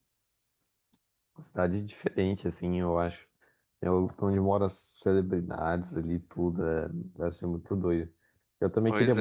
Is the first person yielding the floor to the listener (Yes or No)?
No